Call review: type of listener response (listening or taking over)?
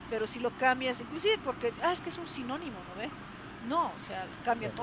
listening